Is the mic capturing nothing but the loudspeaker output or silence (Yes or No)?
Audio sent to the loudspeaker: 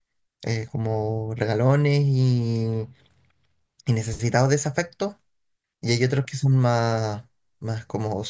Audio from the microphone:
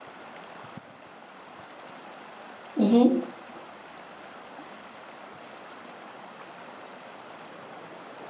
No